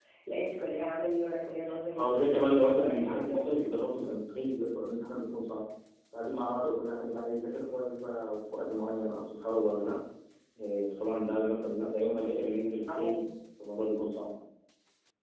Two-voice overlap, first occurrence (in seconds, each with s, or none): 2.0 s